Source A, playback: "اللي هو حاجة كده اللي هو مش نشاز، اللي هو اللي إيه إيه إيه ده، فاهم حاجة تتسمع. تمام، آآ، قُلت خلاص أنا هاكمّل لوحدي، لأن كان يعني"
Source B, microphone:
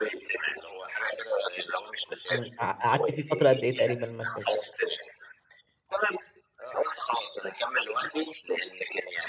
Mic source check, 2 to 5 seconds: both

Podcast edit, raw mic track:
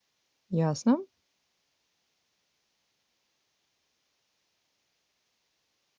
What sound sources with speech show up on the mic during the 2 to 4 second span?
neither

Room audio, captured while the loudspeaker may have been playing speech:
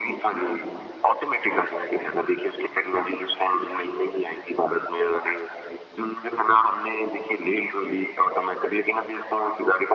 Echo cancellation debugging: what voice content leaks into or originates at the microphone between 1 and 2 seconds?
echo only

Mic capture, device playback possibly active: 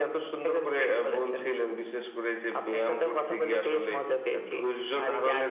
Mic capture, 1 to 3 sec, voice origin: echo only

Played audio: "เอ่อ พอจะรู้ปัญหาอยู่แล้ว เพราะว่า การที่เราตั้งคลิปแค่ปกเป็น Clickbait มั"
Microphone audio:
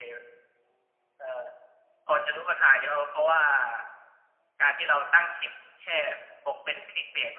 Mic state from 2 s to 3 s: echo only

